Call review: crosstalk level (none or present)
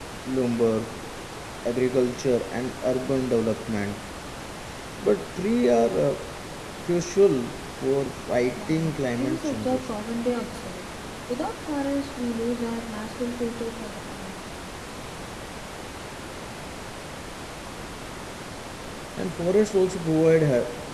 present